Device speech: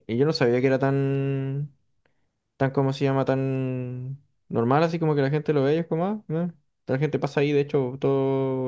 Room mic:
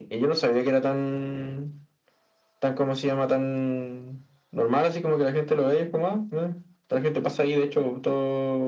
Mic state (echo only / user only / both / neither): echo only